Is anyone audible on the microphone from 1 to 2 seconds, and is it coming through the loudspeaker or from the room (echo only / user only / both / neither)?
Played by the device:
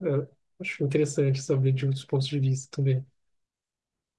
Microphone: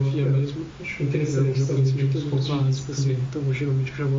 both